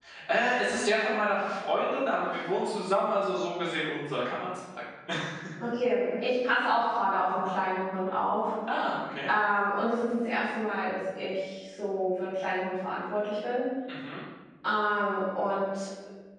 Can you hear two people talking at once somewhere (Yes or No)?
No